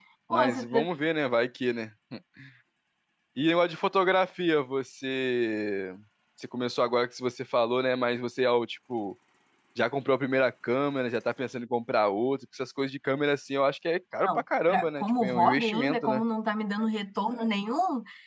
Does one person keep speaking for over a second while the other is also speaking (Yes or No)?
Yes